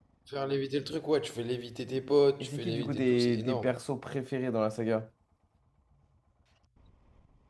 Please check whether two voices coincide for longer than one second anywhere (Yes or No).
Yes